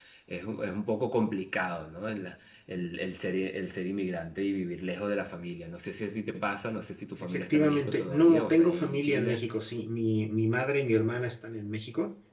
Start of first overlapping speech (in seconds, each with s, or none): 7.2 s